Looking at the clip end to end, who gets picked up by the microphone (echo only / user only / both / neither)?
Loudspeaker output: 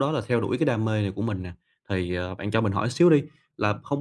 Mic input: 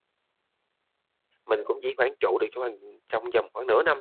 user only